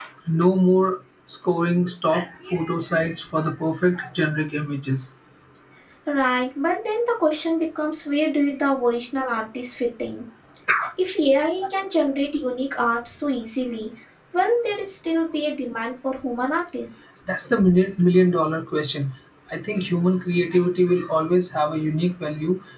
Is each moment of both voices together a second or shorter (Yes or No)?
Yes